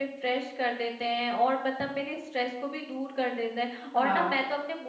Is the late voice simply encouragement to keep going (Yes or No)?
Yes